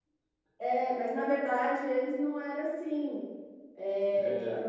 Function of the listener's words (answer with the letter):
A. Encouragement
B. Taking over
A